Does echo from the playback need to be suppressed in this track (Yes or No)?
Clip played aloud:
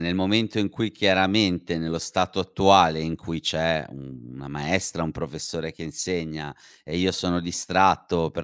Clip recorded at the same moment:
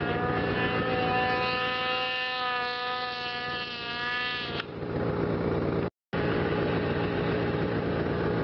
No